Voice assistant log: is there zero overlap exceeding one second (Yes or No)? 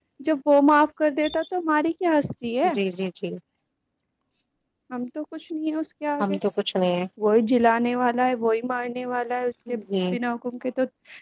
Yes